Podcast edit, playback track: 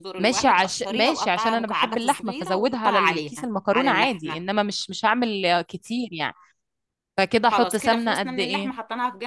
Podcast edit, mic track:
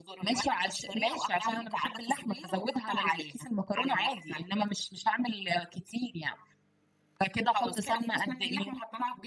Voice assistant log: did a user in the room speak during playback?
No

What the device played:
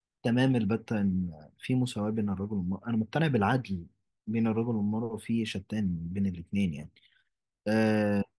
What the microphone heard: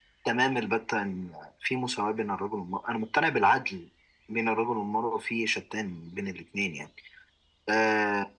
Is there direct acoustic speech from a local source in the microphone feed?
No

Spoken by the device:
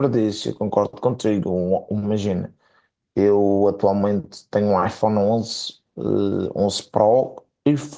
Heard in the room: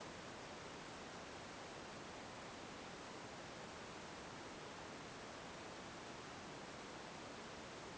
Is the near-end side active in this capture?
No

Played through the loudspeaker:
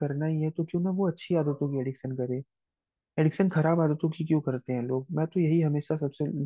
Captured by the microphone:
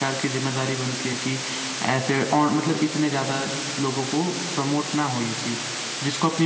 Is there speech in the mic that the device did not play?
Yes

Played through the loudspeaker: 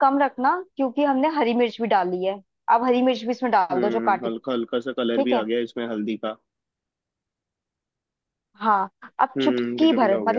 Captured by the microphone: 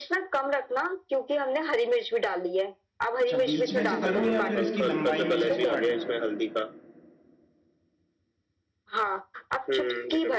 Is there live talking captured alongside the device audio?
Yes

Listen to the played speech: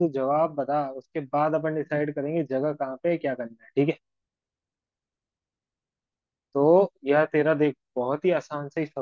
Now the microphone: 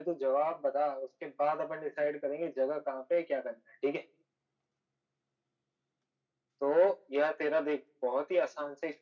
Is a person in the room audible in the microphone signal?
No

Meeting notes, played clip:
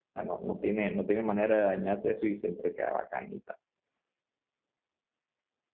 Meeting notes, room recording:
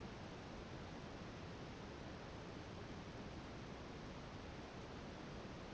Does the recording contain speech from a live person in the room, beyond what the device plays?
No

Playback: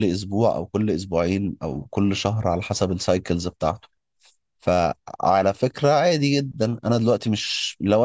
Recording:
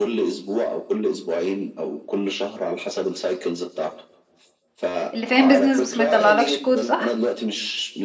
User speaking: Yes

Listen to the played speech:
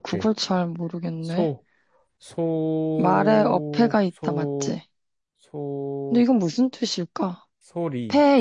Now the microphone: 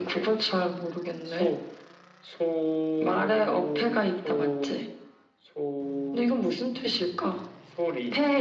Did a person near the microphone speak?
No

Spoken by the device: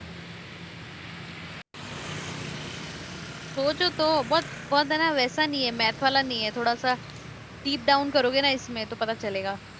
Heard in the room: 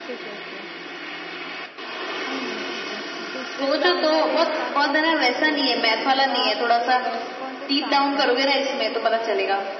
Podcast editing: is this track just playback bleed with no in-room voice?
No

